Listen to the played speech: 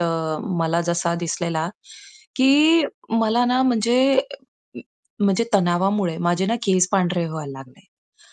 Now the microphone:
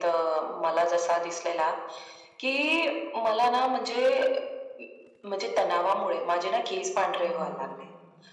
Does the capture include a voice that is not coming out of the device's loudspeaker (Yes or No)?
Yes